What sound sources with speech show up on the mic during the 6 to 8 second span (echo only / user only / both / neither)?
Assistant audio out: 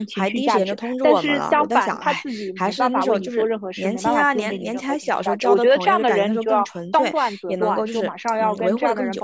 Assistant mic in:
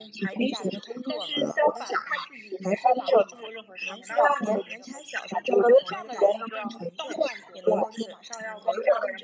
echo only